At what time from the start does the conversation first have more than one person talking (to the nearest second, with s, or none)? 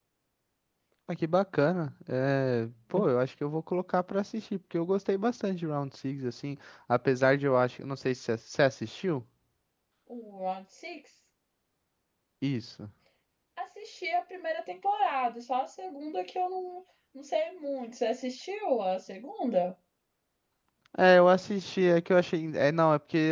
none